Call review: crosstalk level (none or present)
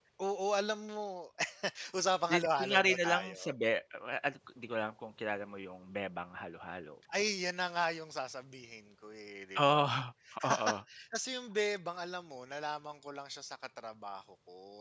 present